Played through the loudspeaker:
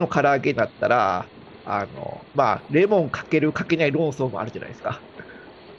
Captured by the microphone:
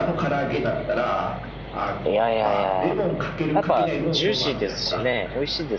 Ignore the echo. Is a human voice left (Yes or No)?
Yes